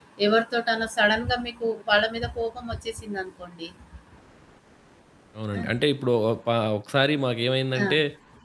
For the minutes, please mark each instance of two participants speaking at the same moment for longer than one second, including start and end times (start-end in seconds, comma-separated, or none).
none